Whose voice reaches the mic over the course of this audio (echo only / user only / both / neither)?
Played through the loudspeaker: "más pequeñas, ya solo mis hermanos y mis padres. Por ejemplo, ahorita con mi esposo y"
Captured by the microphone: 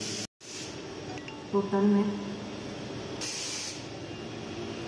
user only